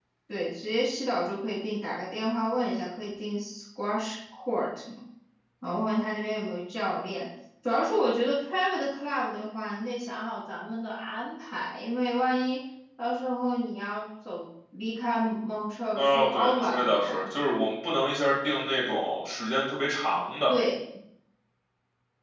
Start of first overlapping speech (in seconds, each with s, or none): 16.0 s